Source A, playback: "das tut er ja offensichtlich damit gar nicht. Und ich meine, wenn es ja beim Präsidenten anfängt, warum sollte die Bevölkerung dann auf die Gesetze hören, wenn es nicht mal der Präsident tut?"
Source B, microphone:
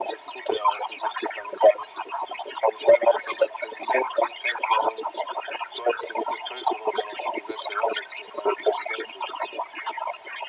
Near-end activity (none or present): none